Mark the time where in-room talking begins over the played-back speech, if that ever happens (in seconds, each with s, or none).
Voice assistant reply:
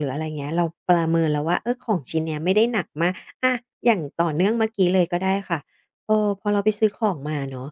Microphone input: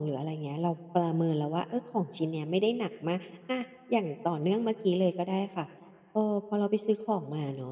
none